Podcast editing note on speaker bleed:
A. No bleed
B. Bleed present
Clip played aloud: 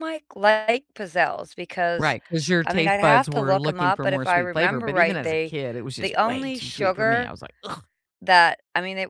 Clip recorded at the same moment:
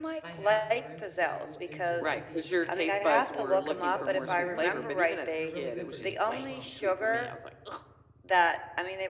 B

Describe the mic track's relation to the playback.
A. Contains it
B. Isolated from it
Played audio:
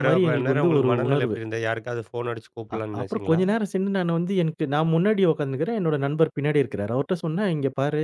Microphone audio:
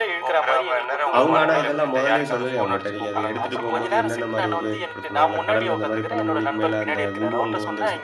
A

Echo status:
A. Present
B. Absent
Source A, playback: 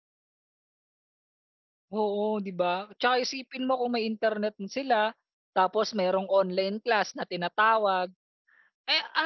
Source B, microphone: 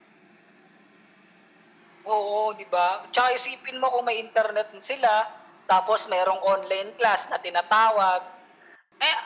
A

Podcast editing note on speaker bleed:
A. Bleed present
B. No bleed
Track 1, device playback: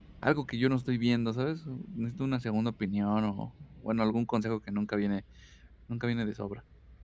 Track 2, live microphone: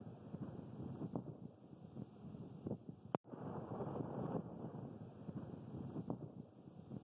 B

